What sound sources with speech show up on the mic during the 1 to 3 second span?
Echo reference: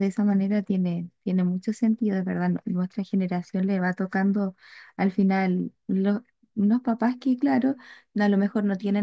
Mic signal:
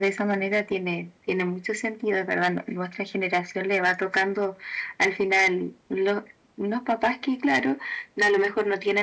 echo only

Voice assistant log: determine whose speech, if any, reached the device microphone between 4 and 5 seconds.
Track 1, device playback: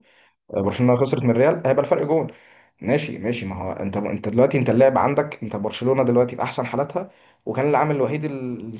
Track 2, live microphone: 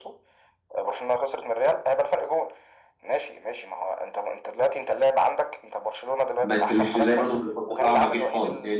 echo only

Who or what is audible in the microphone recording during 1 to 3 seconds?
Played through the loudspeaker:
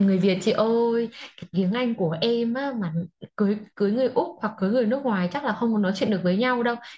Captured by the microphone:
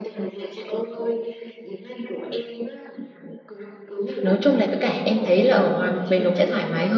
echo only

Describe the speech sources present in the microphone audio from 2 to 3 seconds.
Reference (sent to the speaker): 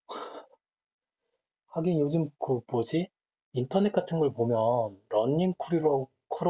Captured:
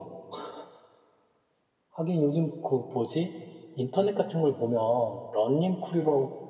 echo only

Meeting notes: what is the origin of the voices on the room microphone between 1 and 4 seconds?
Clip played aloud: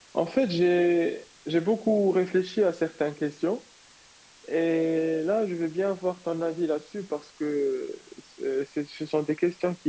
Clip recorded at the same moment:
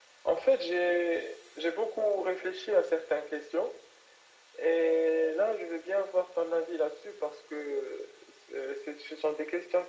echo only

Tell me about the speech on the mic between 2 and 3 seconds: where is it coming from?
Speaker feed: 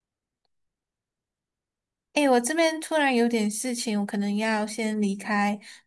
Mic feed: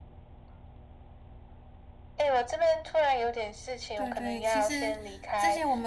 echo only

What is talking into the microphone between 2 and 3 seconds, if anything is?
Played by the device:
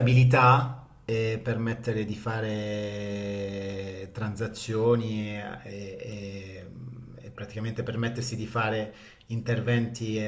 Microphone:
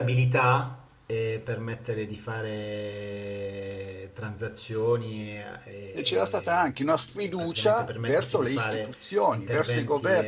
echo only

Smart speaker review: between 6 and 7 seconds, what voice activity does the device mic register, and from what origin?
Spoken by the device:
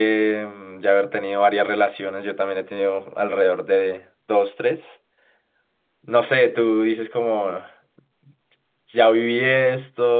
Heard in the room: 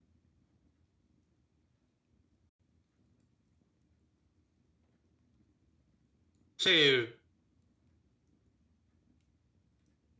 user only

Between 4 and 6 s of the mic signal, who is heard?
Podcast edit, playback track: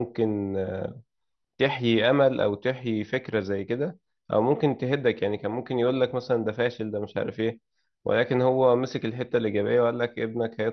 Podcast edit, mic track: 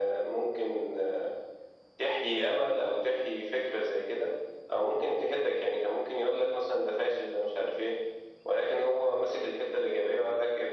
echo only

